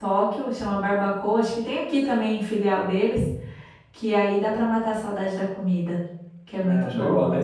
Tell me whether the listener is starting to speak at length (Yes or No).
Yes